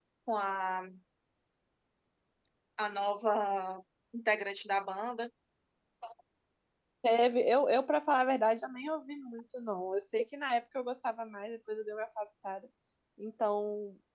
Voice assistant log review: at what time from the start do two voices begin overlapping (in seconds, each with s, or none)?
none